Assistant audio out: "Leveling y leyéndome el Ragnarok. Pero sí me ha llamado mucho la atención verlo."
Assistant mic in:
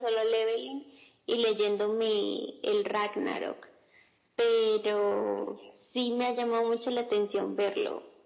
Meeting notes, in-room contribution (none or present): none